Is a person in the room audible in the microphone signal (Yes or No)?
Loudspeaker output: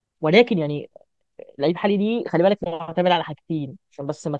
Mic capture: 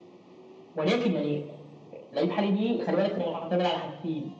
No